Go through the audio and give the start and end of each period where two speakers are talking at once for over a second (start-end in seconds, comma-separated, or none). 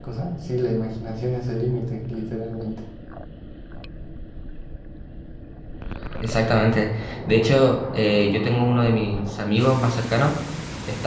none